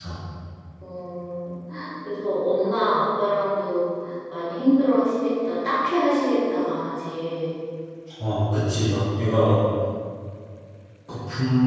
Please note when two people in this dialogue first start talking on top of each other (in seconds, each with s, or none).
none